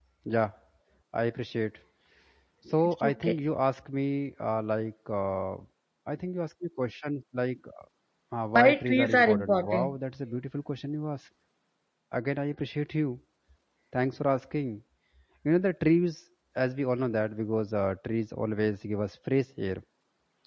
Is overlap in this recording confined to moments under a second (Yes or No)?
No